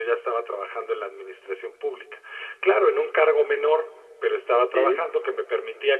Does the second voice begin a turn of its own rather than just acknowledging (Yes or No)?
No